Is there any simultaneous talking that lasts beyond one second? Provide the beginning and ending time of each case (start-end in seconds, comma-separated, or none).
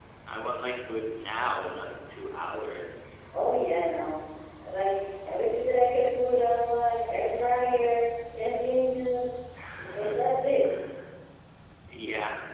none